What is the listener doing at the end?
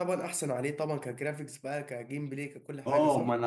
taking over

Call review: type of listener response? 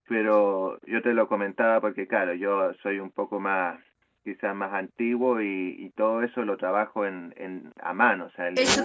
taking over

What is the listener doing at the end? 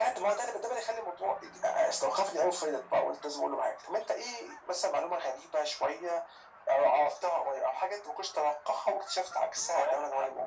taking over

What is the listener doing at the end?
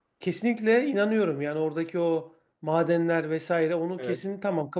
listening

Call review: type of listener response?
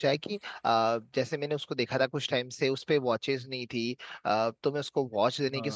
listening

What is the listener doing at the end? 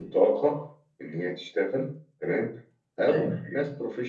listening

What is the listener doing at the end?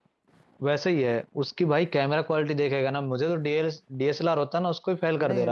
taking over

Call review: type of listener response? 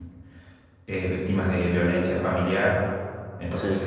listening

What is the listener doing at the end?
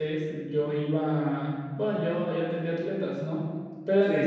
listening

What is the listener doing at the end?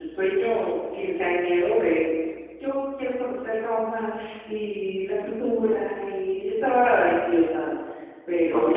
taking over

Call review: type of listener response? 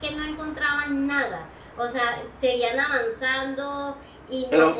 listening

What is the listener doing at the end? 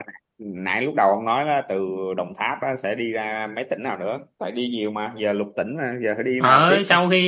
taking over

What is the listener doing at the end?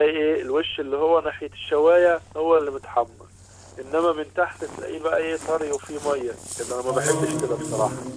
taking over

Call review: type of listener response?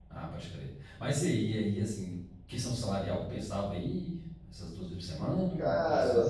taking over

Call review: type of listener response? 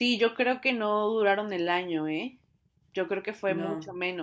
listening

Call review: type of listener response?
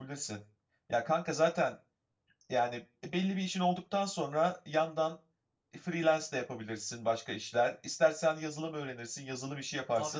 taking over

